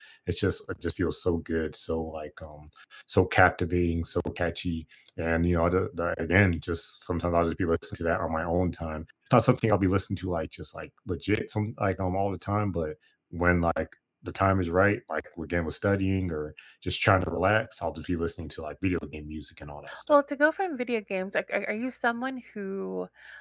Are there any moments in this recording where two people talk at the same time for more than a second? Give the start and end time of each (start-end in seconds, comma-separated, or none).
none